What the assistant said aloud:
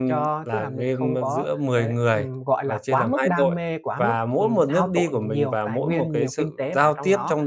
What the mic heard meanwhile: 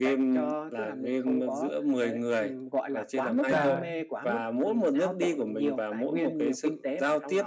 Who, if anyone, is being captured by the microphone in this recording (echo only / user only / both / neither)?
both